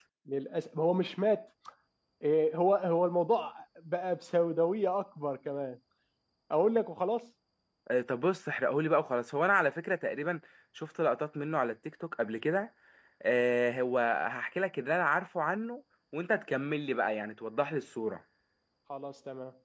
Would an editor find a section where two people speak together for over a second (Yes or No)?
No